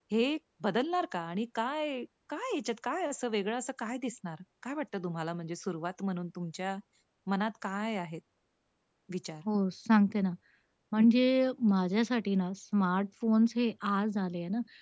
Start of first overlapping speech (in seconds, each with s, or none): none